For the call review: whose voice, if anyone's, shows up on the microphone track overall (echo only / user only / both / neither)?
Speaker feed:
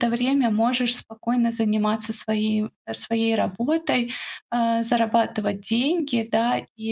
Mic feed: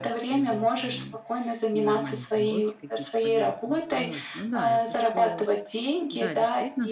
both